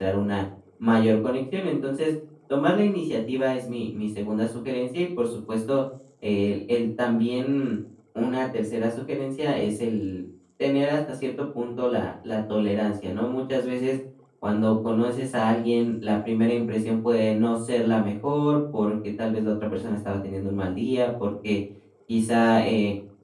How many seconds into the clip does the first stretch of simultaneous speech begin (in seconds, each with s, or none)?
none